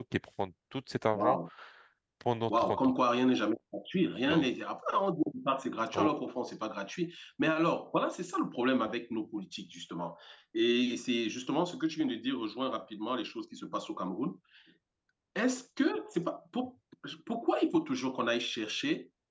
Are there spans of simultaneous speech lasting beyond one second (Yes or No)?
No